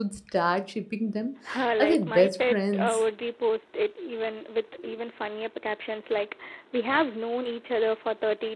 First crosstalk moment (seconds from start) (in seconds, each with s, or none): 1.8 s